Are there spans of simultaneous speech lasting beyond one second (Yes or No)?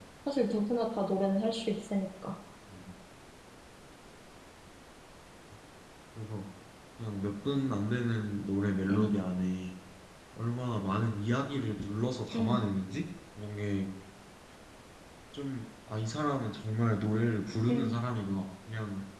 No